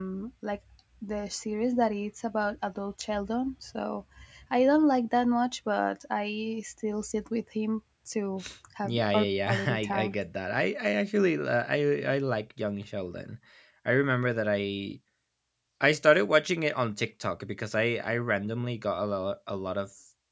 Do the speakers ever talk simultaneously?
Yes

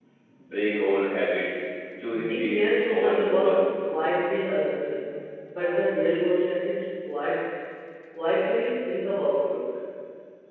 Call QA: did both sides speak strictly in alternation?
No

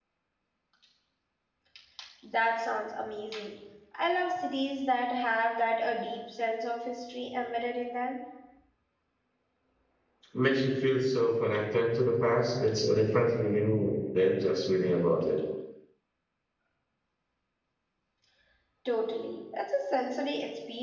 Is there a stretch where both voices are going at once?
No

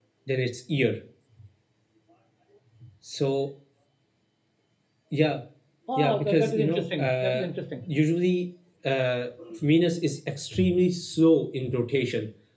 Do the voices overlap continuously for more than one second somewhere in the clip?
Yes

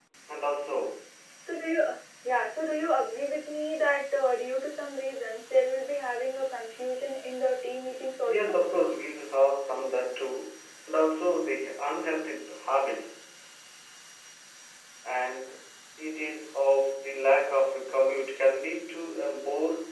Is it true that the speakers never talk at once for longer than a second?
Yes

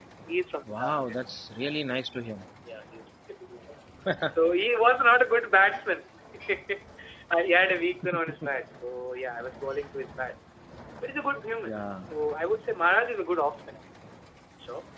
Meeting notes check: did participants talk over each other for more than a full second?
No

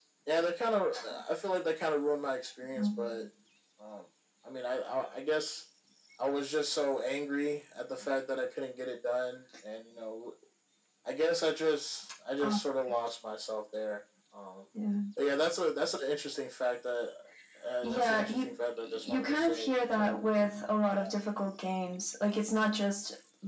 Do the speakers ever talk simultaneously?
Yes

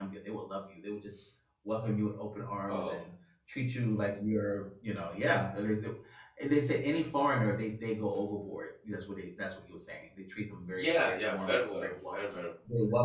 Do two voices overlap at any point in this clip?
Yes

